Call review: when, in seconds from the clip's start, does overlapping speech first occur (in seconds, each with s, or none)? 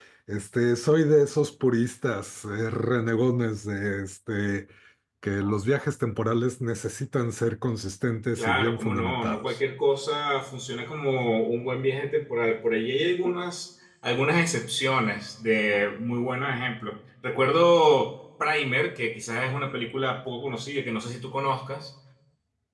8.4 s